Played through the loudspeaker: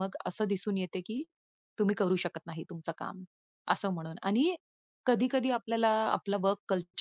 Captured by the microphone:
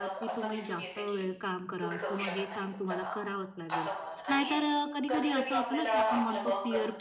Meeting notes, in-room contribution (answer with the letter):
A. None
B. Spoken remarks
B